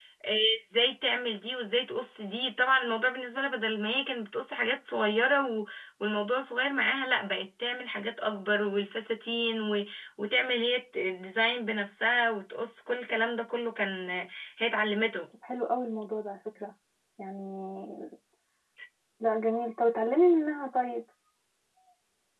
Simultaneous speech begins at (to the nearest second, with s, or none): none